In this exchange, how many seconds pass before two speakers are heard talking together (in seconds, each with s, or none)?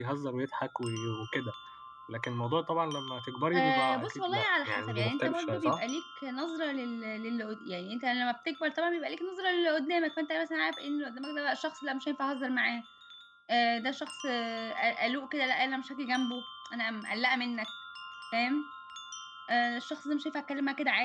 3.5 s